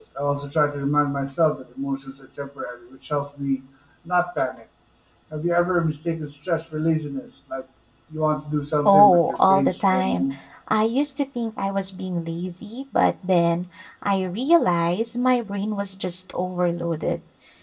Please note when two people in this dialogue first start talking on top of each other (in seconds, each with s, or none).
8.8 s